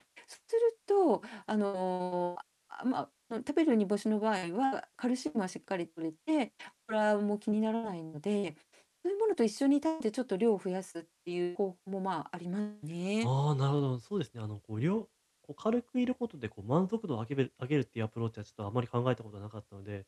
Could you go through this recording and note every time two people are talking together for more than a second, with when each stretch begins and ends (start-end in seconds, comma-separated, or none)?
none